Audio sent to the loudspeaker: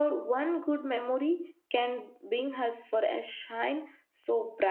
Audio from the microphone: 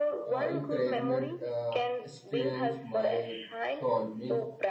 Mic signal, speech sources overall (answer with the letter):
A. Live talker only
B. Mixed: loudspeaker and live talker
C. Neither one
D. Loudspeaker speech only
B